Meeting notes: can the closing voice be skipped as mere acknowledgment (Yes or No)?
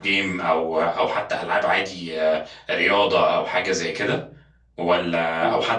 Yes